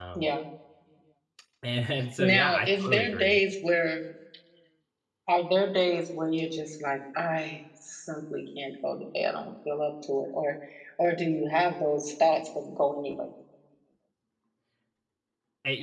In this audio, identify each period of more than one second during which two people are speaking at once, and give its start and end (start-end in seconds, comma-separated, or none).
2.2-3.4